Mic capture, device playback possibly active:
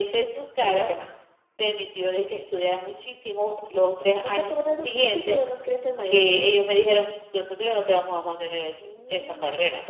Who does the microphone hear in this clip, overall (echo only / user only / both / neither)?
echo only